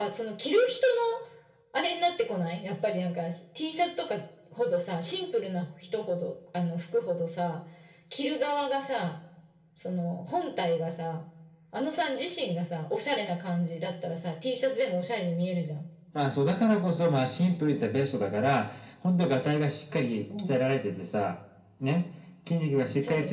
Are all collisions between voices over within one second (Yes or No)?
Yes